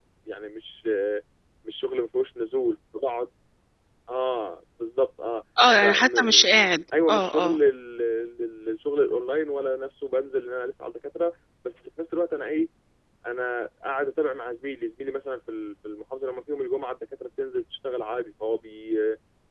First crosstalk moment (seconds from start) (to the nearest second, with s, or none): 6 s